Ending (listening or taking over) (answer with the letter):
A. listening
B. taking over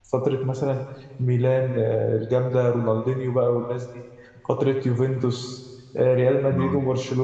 A